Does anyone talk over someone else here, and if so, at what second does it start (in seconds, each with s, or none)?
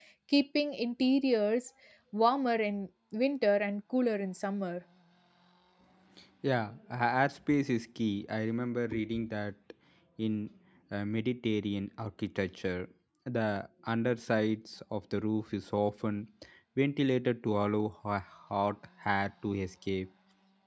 none